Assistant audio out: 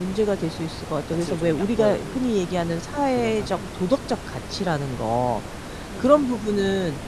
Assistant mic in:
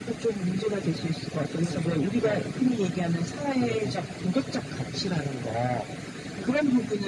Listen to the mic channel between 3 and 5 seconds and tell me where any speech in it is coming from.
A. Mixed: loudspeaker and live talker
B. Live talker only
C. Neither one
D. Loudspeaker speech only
D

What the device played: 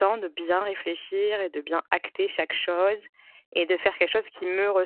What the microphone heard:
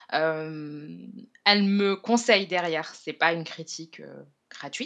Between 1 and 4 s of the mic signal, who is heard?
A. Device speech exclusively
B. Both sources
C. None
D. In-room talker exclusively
D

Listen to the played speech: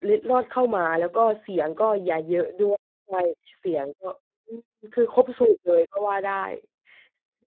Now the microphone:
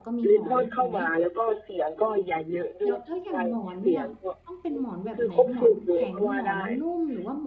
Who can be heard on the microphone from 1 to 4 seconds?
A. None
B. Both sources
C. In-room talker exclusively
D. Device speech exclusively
B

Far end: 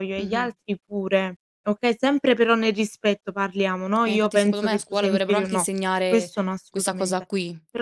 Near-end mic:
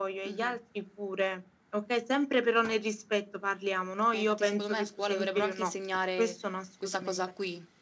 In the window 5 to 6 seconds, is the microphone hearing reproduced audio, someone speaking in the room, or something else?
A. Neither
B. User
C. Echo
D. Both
C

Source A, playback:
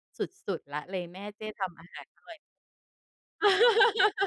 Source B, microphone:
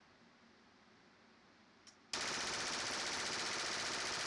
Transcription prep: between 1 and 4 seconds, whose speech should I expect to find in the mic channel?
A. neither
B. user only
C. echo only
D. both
A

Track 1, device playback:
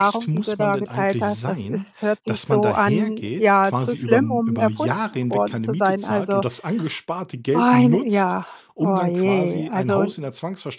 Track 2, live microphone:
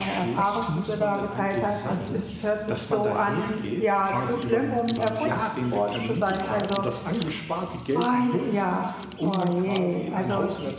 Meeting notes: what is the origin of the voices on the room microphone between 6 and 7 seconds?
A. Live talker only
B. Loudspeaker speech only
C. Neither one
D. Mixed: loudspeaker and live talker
B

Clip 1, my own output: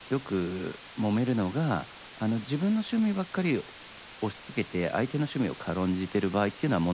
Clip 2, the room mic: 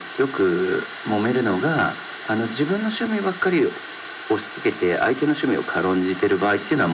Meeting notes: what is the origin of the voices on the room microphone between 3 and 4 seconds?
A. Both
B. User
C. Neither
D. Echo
D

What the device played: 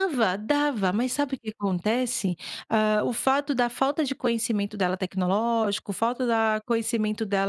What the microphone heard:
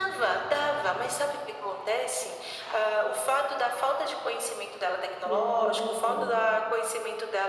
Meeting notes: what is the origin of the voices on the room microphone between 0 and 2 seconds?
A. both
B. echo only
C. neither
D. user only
B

